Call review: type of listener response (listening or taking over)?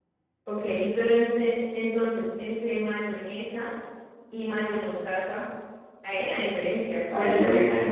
taking over